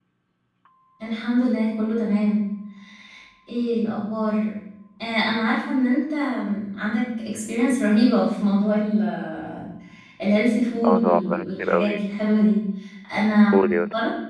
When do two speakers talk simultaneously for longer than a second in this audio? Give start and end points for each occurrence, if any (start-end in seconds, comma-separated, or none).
10.8-12.2